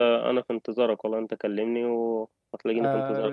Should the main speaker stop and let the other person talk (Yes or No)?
Yes